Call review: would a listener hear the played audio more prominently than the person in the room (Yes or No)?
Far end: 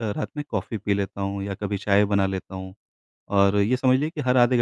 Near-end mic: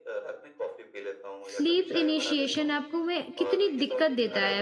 No